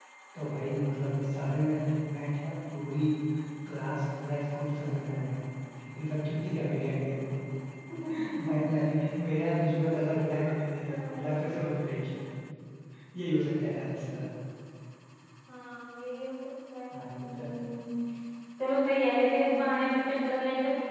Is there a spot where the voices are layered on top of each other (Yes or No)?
Yes